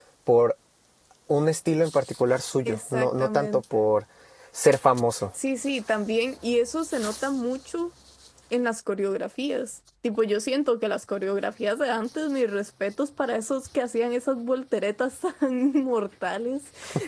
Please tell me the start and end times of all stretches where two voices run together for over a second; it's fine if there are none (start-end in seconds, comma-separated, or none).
2.6-3.9